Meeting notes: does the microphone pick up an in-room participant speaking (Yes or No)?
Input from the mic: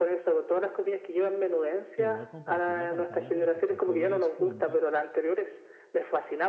Yes